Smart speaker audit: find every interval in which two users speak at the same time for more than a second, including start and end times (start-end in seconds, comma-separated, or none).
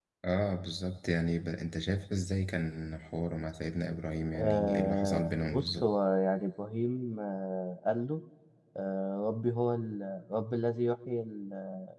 4.3-5.9